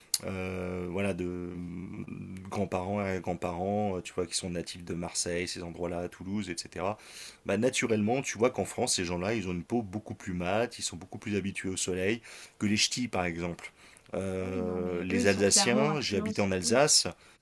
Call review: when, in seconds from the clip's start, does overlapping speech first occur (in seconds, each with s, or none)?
14.4 s